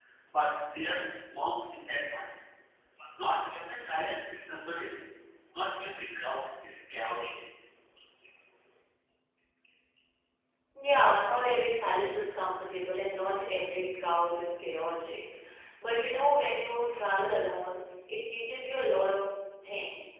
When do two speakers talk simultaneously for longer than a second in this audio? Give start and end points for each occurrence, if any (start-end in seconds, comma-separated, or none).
none